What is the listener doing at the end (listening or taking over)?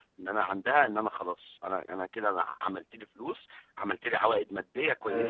taking over